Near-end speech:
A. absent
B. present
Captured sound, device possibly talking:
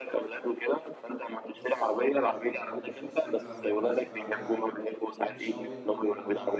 B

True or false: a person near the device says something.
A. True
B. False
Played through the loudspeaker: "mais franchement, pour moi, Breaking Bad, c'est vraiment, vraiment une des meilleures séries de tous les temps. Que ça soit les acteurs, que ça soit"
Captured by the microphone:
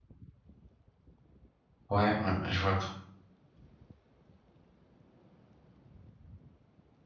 A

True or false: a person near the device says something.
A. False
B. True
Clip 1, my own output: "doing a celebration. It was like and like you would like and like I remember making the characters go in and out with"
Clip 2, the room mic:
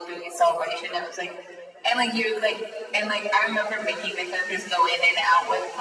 A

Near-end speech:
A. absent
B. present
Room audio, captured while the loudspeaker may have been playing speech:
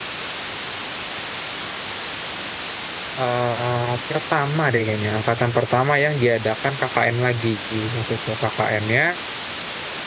B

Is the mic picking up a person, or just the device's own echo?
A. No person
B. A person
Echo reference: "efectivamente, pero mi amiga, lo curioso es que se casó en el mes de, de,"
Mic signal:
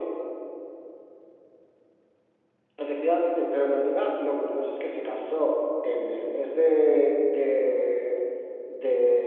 A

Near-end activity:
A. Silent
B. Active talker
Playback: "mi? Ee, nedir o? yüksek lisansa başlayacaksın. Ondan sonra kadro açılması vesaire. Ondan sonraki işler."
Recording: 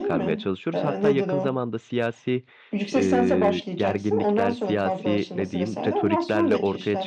B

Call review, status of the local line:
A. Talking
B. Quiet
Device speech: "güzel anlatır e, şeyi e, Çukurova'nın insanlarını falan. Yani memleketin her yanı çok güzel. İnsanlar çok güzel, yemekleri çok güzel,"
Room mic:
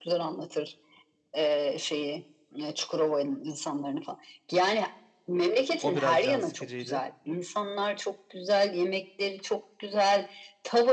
A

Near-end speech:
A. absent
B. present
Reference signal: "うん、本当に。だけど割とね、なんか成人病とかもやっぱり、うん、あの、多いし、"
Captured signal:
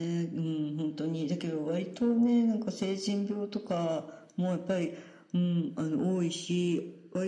A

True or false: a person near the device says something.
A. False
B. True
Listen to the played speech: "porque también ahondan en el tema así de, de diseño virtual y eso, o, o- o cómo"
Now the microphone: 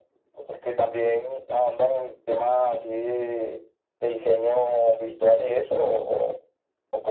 A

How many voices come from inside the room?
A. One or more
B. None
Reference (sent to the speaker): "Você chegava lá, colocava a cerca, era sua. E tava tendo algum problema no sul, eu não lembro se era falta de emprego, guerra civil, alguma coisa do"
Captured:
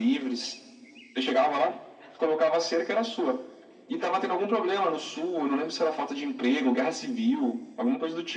B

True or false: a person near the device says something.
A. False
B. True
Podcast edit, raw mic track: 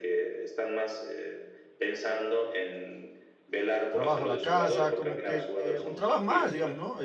B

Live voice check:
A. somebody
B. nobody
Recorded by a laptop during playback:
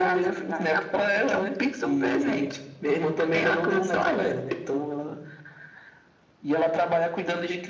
B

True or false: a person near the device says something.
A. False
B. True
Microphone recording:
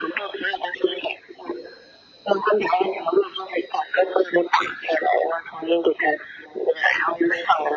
A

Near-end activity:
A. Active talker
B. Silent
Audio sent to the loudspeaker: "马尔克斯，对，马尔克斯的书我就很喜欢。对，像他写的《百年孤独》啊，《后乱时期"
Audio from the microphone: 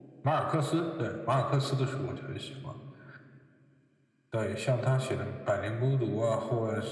B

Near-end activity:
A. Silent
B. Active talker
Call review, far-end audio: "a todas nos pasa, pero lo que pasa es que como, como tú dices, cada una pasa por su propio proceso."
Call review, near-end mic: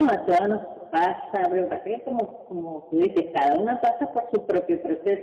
A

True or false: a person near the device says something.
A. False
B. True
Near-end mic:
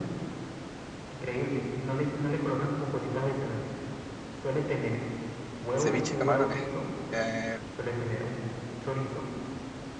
B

